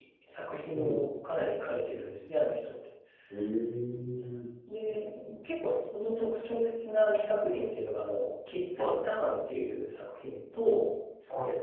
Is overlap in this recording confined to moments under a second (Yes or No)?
Yes